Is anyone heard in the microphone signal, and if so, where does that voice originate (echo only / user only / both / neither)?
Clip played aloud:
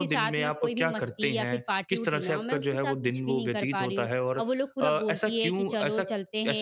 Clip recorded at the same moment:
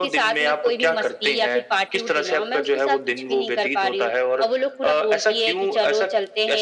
echo only